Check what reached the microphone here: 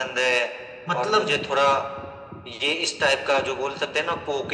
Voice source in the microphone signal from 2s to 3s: echo only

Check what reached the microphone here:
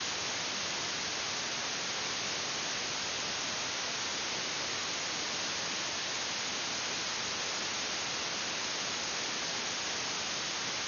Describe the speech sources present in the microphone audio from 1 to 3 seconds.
neither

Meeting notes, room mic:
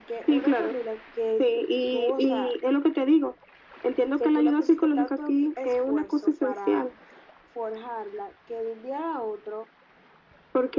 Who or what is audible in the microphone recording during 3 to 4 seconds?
echo only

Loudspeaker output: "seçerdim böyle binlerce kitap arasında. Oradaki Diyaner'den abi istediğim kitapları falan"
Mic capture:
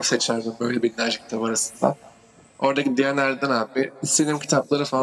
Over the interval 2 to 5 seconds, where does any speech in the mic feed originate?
echo only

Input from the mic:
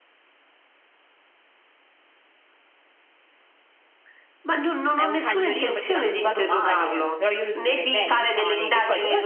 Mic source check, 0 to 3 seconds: neither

